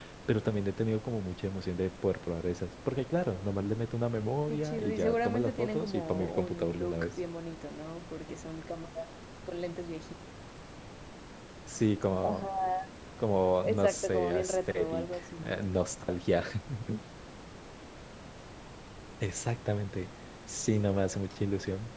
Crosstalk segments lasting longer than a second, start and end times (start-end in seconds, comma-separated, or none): 4.5-7.1, 13.6-15.7